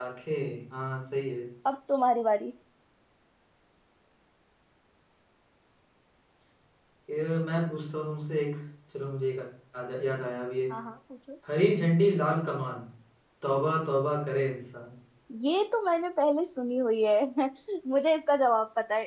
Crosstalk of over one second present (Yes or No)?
No